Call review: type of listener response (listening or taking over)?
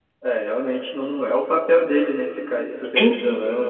taking over